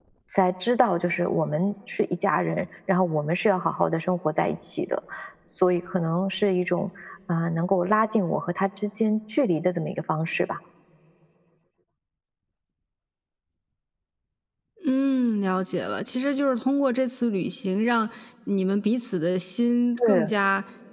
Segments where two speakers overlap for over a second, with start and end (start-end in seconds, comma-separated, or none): none